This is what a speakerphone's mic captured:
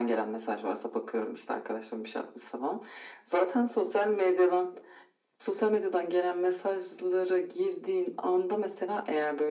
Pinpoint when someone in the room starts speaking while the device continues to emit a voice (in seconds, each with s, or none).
none